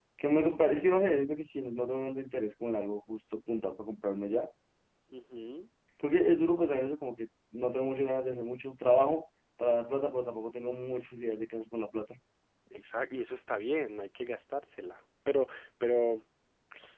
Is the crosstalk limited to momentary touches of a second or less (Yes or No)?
Yes